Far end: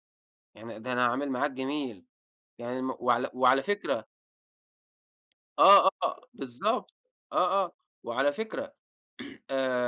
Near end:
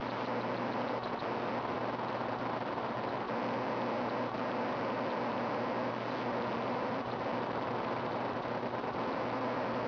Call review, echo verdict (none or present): none